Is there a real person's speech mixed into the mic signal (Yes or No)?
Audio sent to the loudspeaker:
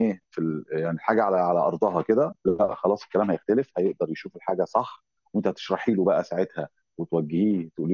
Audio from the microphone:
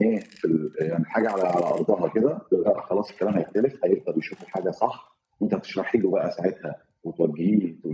No